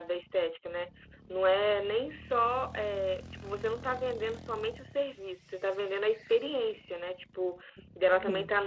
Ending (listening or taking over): listening